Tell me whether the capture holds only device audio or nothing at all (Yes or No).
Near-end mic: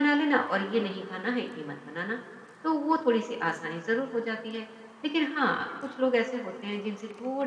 Yes